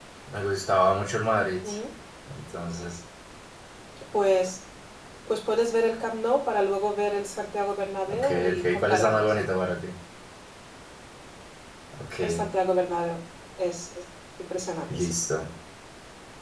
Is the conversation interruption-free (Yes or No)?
No